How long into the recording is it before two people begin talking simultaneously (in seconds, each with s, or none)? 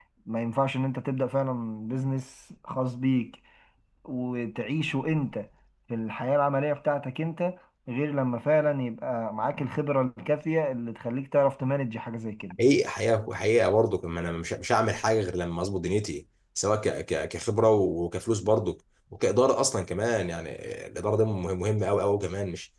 none